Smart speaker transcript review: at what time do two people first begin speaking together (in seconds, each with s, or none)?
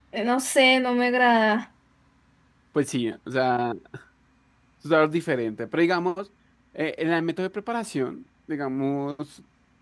none